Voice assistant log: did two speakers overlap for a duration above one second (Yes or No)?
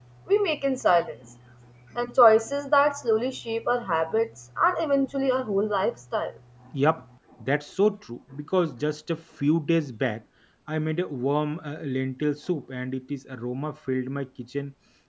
No